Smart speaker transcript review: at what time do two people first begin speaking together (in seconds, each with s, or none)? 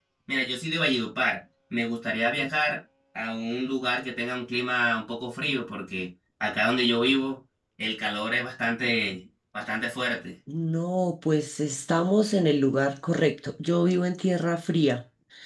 none